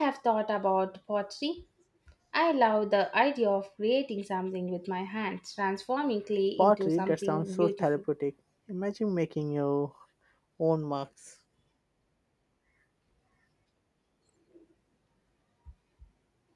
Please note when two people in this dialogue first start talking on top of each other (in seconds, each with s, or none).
6.6 s